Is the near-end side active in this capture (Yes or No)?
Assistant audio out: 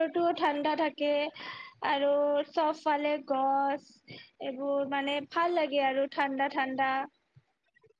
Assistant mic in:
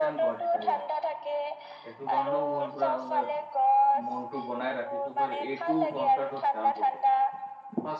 Yes